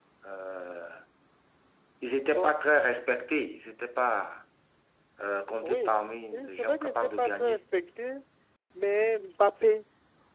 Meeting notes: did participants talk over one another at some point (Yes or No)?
Yes